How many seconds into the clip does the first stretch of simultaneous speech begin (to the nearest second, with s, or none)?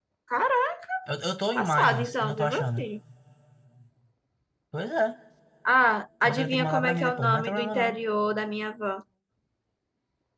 2 s